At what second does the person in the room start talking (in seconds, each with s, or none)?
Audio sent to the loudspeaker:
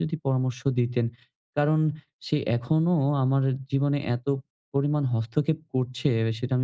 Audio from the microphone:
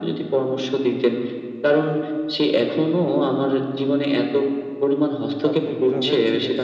5.5 s